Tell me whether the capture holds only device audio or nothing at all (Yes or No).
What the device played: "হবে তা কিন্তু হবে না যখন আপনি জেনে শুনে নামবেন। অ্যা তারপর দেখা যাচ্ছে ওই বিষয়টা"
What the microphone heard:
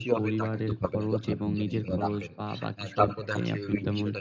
No